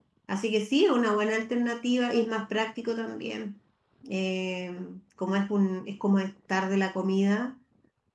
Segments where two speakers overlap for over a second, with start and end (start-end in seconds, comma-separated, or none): none